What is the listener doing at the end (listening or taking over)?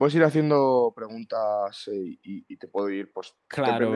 taking over